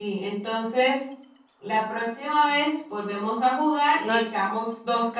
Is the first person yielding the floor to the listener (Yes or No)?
No